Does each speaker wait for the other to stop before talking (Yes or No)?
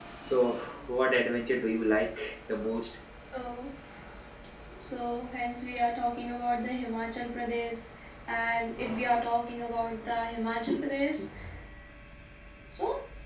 Yes